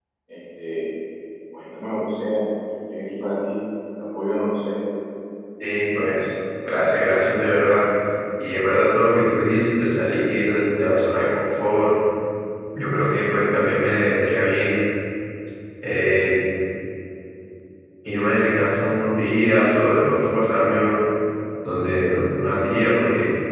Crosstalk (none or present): none